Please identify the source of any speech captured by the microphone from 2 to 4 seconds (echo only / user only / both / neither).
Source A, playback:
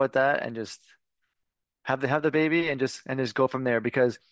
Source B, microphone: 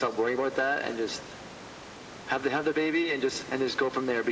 echo only